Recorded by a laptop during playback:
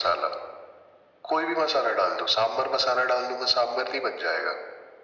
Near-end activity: none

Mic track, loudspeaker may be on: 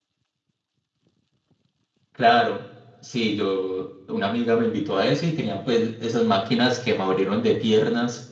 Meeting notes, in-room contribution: present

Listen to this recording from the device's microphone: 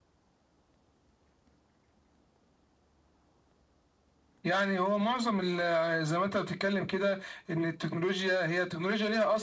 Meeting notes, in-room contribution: none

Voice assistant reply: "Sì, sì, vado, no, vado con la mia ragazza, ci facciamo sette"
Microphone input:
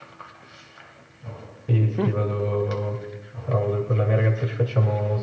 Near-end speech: present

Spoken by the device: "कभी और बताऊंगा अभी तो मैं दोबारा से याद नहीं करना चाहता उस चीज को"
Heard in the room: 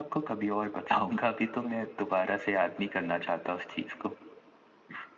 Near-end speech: none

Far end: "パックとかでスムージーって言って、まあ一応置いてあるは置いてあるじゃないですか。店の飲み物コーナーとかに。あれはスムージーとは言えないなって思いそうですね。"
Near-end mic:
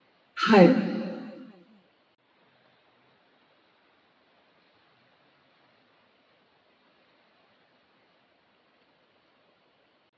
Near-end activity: present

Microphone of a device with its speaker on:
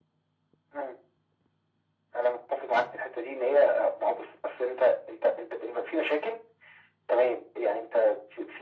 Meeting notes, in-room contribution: none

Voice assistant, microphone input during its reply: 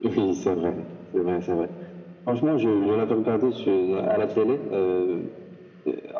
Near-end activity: none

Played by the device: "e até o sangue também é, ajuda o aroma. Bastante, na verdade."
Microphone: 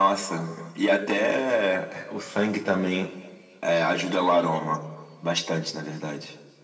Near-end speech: none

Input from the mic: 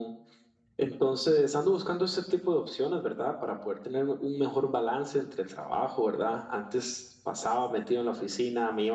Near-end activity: none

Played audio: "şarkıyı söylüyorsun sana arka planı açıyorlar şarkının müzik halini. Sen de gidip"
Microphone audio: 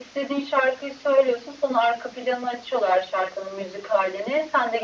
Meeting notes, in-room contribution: none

